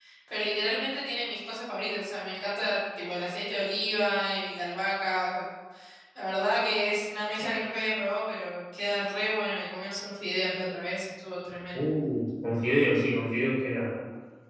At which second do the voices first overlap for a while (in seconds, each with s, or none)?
none